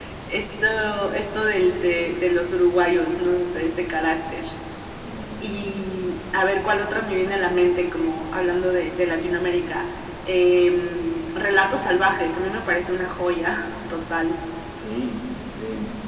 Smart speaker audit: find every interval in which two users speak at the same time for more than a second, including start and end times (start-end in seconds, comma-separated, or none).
none